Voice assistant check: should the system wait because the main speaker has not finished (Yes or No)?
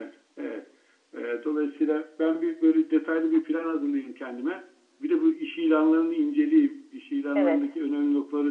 Yes